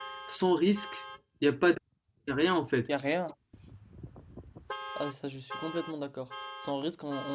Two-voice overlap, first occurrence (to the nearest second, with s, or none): none